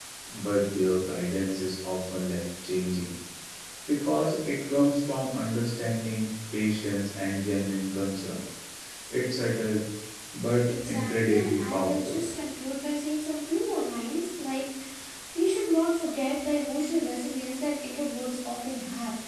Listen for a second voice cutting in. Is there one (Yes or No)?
Yes